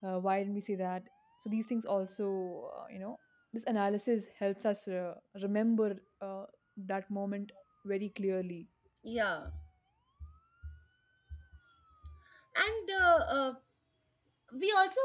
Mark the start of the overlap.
none

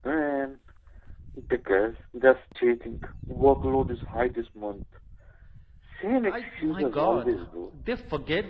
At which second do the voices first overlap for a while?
6 s

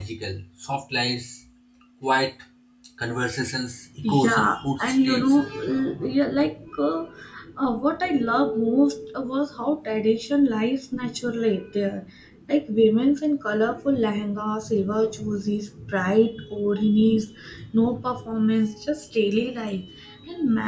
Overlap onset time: 4 s

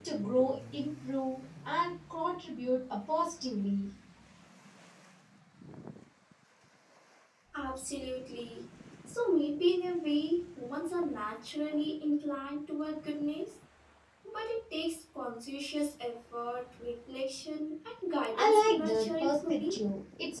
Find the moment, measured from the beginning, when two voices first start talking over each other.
18 s

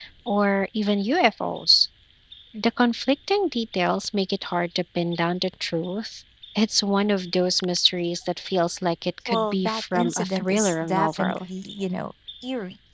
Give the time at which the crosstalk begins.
9 s

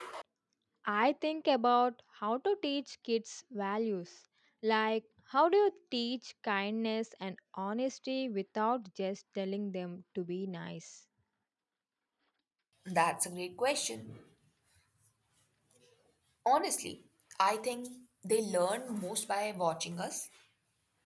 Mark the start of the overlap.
none

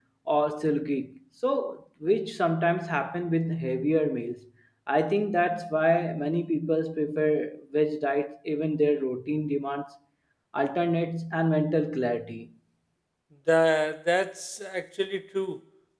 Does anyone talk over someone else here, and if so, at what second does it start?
none

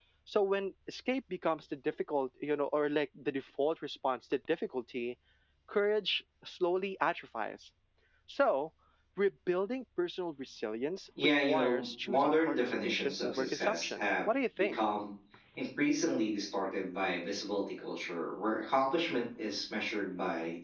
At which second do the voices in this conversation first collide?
11 s

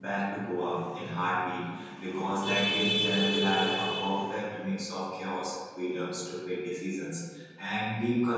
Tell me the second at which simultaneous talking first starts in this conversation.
none

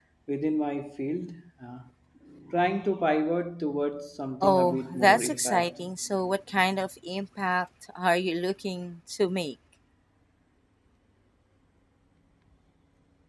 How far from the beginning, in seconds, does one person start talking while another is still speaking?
4 s

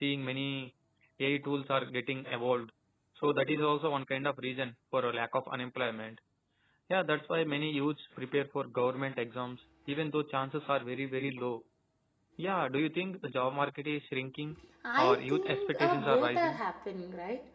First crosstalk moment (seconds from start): 15 s

